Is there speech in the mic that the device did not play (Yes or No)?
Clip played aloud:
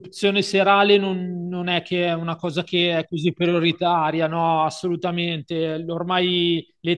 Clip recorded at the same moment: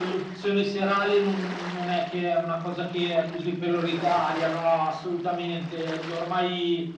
No